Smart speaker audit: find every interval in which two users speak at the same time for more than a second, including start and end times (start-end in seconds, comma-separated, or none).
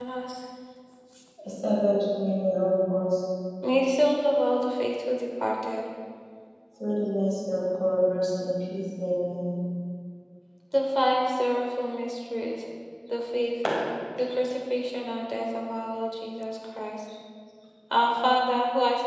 none